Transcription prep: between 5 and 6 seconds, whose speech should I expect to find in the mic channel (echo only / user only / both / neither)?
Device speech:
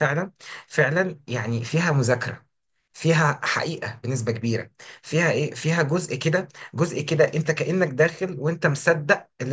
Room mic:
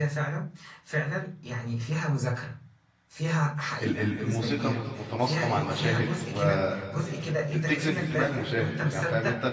both